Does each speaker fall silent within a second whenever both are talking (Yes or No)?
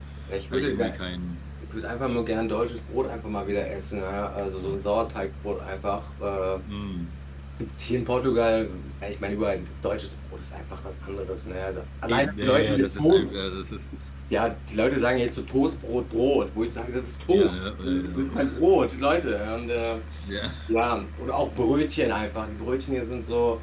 No